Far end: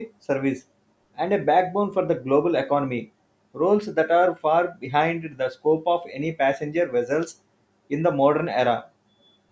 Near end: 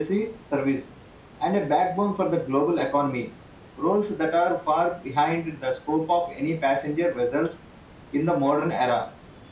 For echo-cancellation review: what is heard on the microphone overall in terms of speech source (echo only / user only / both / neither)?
echo only